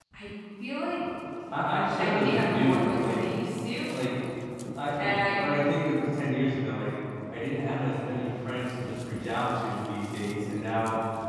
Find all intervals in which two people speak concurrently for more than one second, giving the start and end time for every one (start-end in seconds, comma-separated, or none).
2.0-3.2